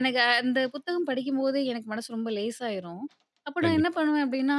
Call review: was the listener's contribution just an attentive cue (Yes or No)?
Yes